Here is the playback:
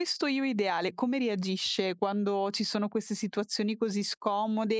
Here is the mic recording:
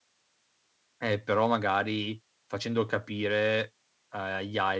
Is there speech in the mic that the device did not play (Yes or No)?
Yes